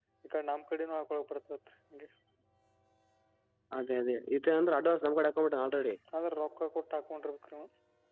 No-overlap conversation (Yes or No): Yes